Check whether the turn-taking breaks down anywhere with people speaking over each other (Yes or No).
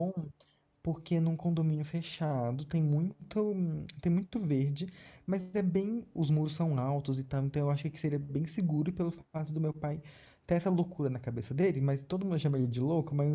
No